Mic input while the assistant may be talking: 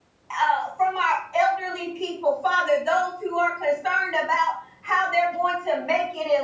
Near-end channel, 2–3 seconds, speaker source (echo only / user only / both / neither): user only